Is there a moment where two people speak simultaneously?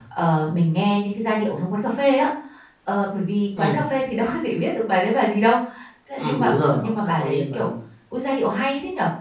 Yes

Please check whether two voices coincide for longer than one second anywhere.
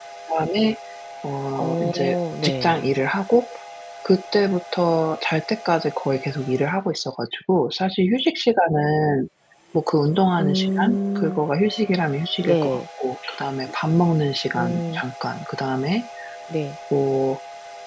Yes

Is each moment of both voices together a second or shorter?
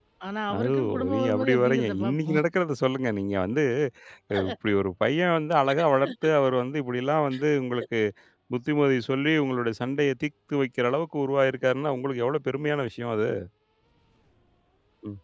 No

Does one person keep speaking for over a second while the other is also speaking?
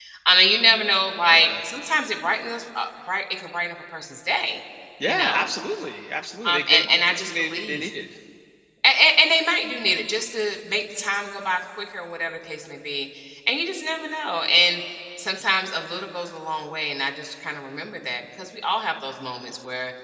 Yes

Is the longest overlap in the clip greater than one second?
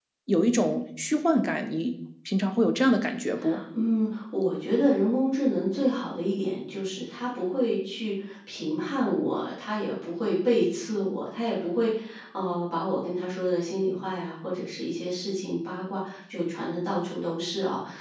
No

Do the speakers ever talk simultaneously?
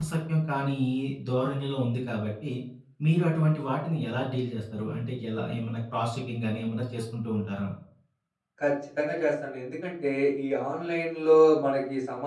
No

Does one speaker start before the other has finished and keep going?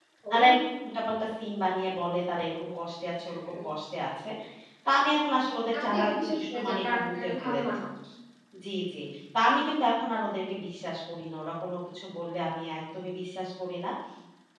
Yes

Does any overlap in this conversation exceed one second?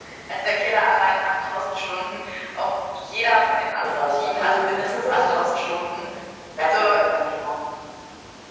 Yes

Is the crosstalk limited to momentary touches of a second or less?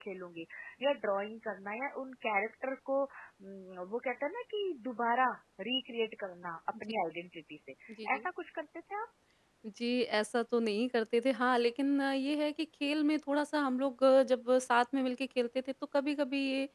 Yes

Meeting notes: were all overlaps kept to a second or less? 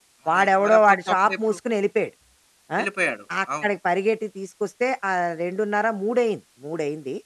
No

